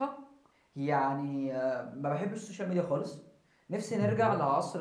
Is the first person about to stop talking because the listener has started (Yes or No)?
No